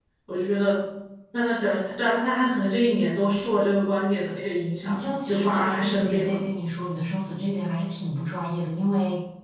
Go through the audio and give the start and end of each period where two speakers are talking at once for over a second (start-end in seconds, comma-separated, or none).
4.8-6.4